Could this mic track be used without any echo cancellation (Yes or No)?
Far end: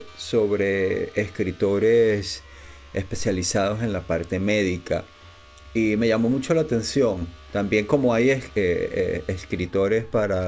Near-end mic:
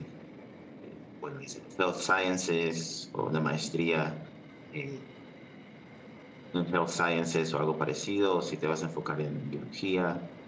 Yes